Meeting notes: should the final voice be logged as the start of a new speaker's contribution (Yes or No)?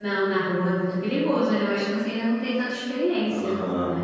Yes